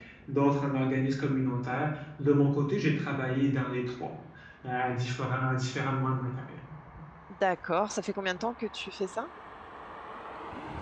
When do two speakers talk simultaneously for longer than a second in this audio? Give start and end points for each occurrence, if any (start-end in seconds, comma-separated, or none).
none